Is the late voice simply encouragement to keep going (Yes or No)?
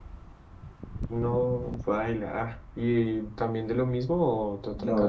No